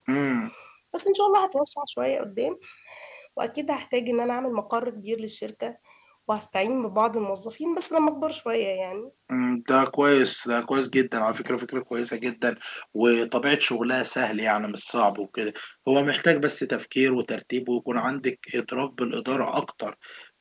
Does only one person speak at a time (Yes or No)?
Yes